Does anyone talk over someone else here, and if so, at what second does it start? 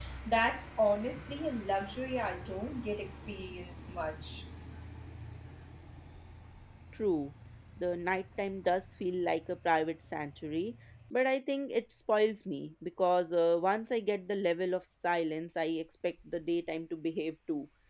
none

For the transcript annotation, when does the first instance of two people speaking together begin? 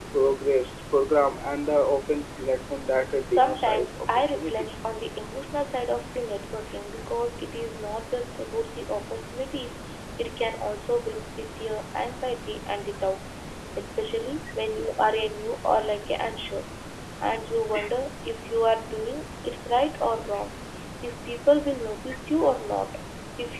3.3 s

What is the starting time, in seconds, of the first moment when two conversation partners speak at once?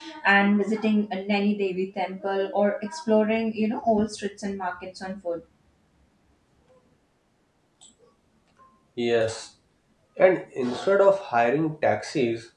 none

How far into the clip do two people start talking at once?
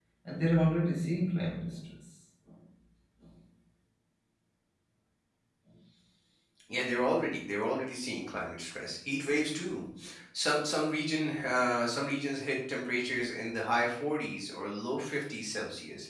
none

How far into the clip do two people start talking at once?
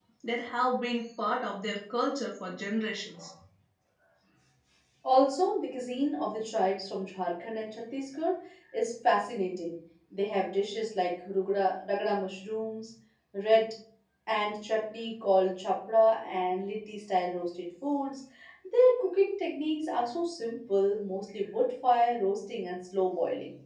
none

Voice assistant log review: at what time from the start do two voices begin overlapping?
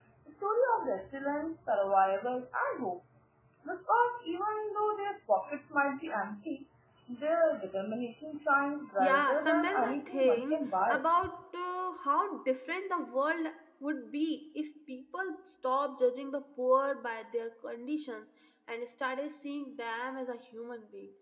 9.0 s

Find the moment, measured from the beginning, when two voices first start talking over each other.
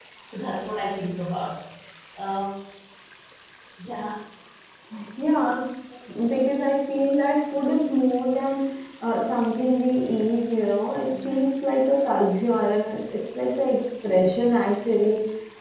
none

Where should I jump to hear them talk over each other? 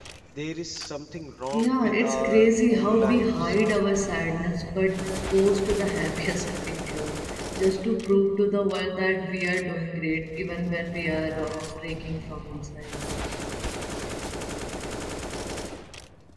1.5 s

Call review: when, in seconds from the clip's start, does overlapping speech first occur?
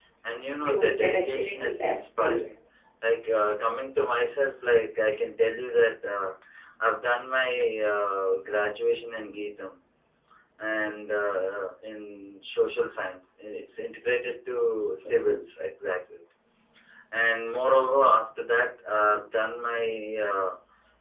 0.6 s

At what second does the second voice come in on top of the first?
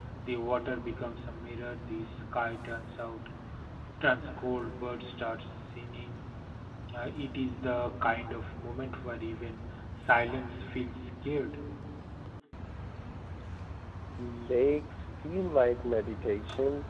none

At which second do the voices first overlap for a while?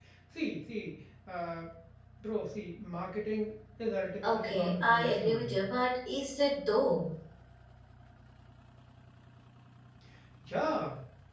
4.2 s

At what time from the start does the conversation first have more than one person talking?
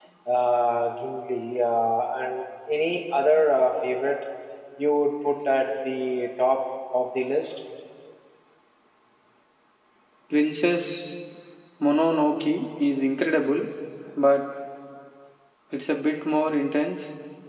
none

